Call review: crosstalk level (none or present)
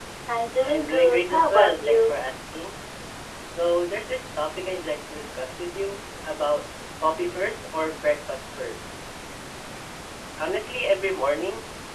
present